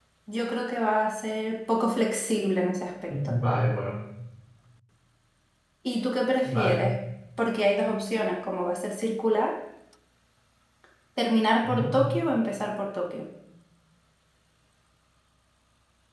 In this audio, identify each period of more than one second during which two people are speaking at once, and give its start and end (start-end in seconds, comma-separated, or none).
none